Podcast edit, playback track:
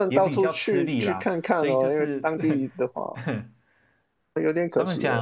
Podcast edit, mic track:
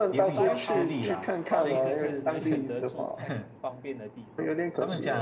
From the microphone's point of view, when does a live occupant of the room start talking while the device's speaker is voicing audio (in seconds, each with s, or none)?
0.3 s